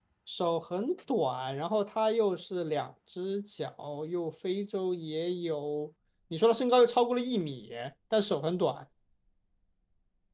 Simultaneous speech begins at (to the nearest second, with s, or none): none